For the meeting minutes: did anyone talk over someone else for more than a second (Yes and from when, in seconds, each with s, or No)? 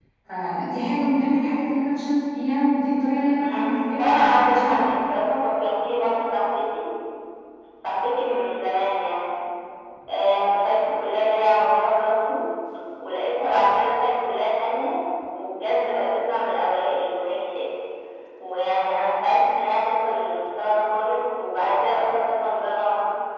Yes, from 3.4 s